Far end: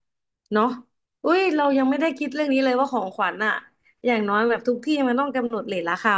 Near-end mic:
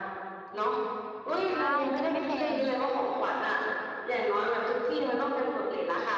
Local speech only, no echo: ใช่จะได้ไม่แพง

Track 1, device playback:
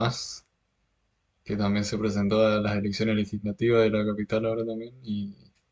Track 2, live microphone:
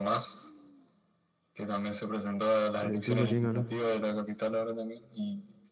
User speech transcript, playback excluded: en el tuyo quién ganó,

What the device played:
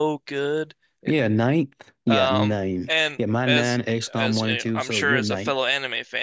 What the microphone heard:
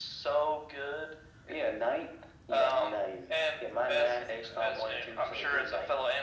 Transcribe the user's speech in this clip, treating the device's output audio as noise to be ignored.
none

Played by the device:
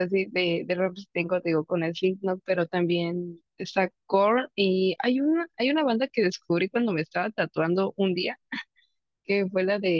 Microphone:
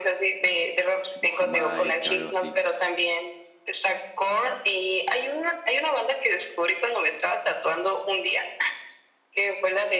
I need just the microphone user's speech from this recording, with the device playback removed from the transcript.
tipo Jamaica, algo así.

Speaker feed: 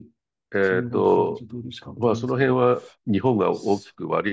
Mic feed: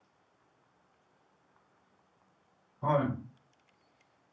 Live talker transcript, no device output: はい。

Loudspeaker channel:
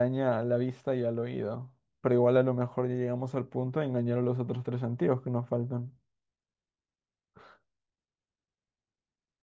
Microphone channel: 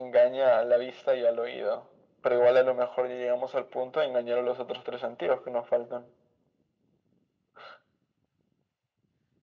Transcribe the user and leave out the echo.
none

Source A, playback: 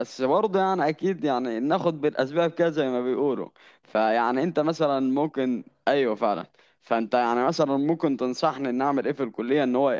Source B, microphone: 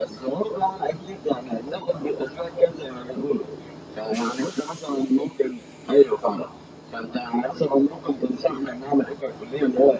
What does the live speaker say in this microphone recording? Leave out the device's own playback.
none

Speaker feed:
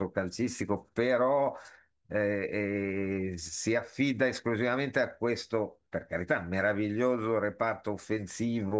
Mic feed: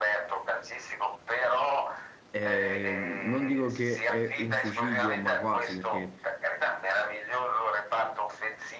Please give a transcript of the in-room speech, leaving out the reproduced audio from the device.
è- non dico che è un suicidio, ma quasi, perché

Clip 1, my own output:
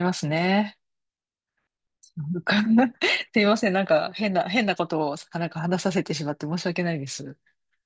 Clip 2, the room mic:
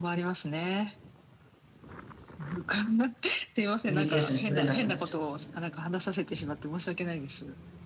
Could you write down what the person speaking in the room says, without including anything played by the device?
コミュニケーションが取れなくなっちゃった。

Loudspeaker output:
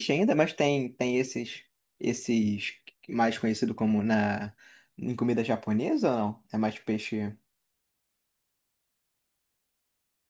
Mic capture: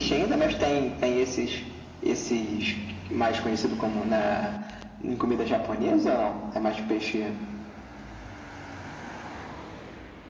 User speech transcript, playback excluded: none

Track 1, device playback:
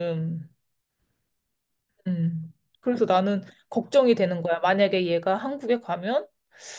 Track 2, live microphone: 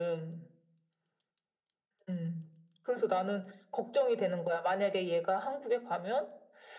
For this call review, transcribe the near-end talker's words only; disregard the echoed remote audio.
none

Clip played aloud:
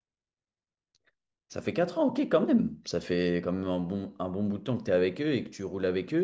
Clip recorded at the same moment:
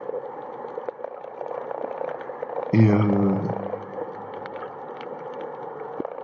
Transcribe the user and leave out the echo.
Et euh,

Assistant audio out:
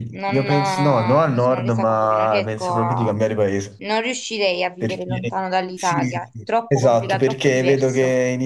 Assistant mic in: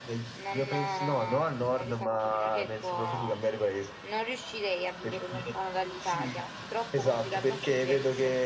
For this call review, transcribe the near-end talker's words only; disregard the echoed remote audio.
none

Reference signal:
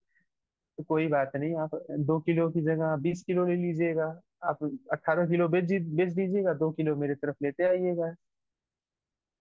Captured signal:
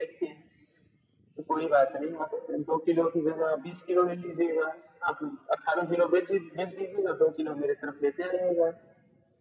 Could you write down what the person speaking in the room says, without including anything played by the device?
none

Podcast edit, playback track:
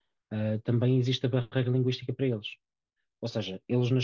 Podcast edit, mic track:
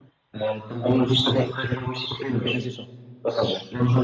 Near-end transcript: apenas e só.

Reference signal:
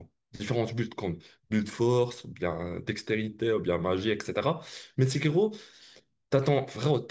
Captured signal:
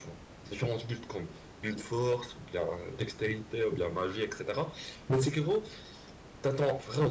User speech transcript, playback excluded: none

